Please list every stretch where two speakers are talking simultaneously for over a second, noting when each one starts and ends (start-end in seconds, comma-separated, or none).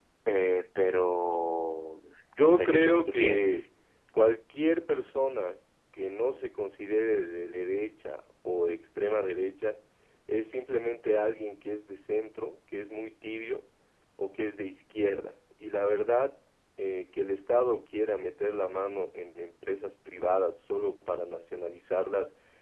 2.4-3.6